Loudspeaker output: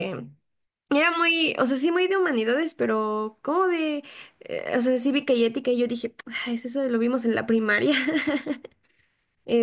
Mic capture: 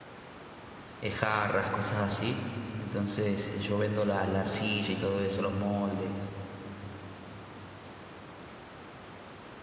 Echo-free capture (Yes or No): Yes